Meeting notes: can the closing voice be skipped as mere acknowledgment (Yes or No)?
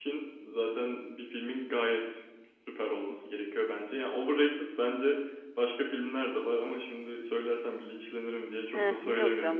No